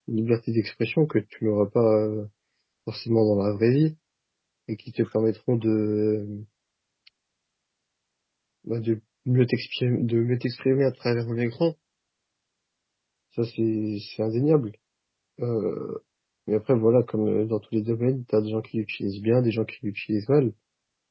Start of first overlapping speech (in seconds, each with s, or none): none